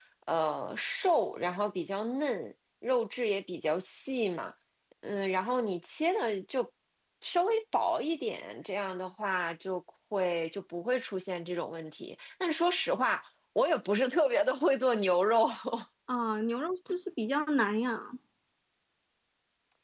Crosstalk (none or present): none